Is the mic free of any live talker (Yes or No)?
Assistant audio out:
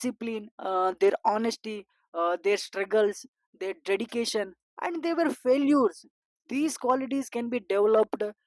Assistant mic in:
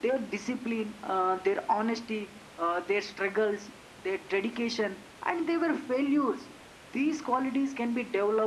Yes